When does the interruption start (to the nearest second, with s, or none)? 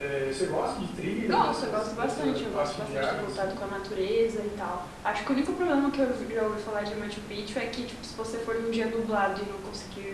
1 s